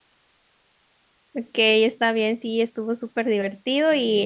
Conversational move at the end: listening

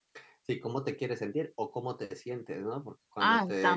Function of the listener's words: listening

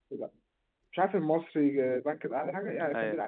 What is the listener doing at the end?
listening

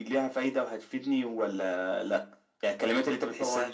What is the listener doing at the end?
listening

